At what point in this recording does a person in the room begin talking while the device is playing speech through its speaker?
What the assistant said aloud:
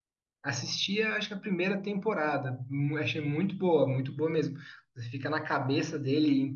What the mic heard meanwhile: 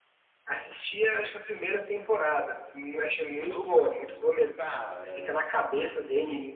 3.3 s

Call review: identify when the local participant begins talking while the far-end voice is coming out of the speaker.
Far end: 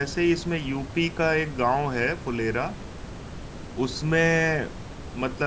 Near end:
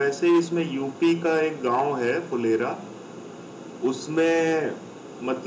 none

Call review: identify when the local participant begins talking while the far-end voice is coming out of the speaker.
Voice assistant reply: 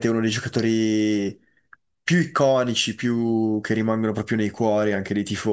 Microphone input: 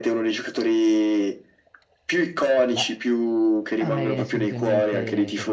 2.7 s

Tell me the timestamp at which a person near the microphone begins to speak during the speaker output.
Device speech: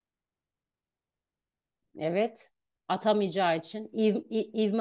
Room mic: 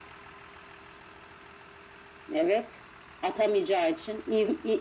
none

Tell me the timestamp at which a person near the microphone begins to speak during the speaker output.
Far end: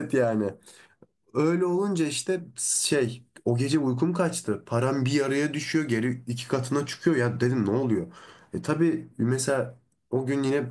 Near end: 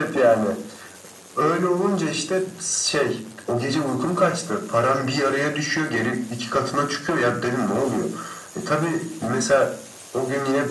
none

